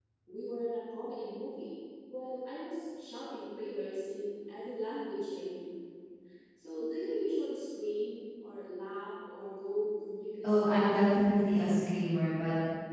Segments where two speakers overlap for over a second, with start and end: 10.4-11.6

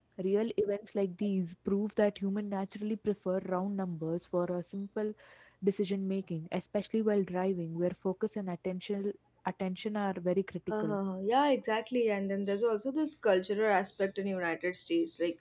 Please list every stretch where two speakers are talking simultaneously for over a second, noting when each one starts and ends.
none

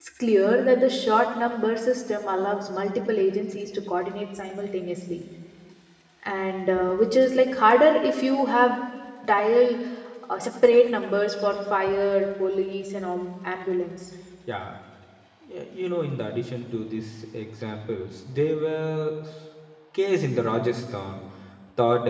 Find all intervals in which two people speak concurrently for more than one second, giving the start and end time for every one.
none

